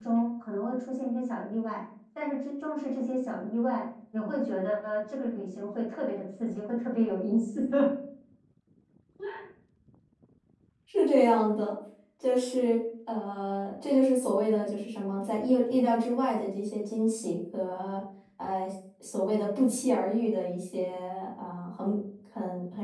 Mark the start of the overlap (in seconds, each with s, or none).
none